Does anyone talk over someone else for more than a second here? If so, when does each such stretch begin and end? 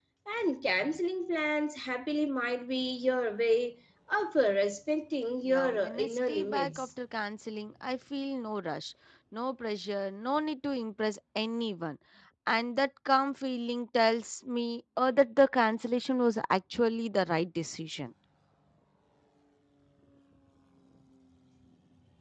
5.5-6.9

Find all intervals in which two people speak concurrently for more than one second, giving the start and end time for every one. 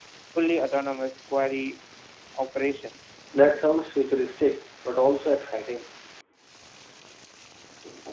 none

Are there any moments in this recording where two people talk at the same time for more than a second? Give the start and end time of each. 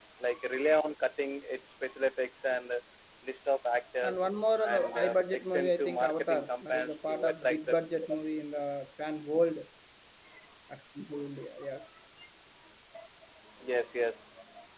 4.8-7.8

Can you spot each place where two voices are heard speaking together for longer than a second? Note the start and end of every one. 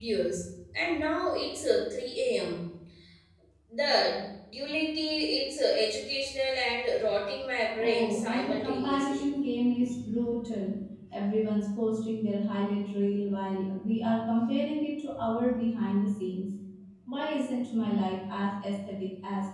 7.8-9.2

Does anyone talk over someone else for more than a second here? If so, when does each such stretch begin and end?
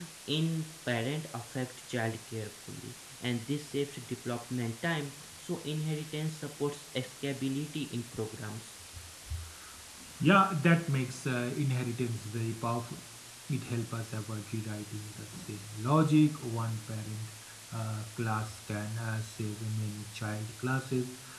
none

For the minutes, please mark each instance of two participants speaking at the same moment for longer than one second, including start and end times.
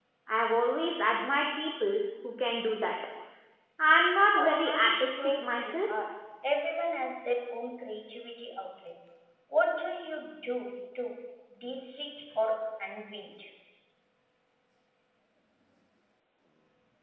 4.4-5.8

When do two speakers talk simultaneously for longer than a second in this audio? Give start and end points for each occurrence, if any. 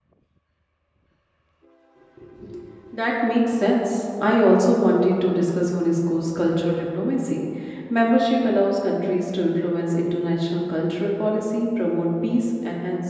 none

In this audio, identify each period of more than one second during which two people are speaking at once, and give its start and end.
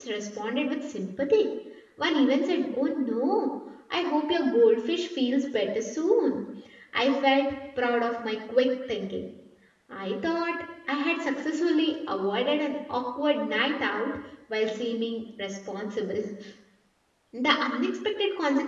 none

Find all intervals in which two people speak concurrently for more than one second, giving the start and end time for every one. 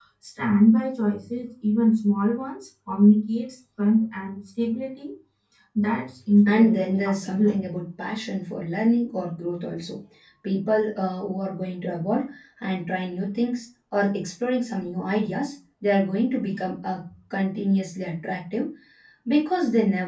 6.5-7.7

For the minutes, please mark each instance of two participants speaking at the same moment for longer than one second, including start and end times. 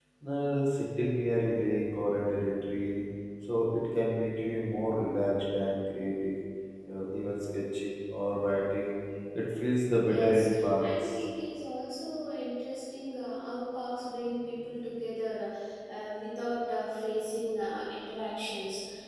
9.9-11.2

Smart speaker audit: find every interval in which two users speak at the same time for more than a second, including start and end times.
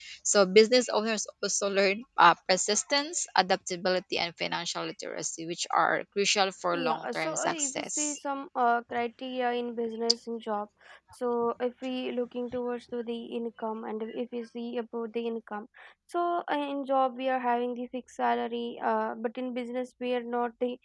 6.7-8.2

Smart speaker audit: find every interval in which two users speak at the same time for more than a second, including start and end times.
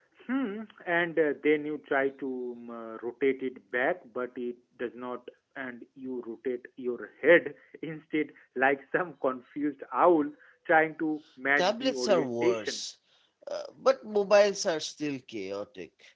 11.6-12.8

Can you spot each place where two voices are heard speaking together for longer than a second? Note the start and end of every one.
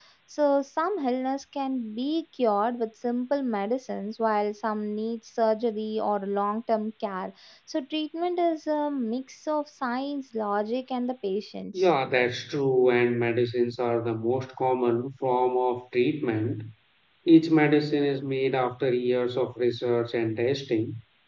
none

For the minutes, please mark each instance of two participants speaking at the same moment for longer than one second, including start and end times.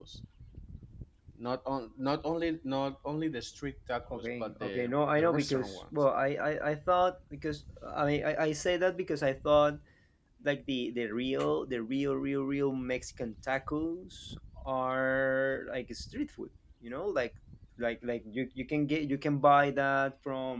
4.1-5.9

